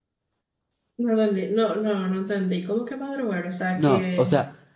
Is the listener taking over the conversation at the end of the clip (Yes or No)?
Yes